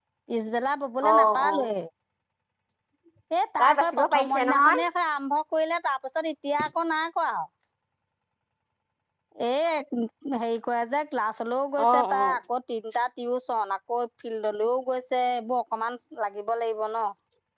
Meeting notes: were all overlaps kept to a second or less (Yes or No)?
No